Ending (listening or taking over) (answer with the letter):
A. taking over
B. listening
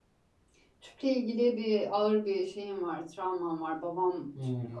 B